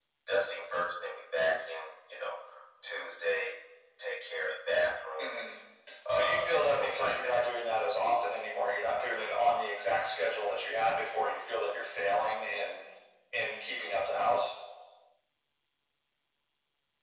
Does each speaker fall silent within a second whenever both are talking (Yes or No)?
No